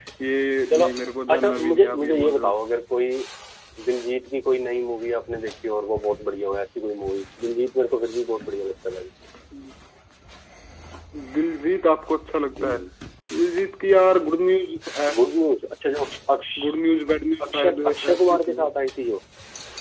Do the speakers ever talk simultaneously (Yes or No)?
Yes